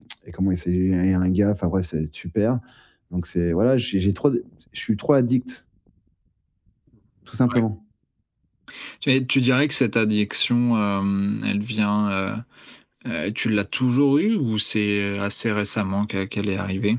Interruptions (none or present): none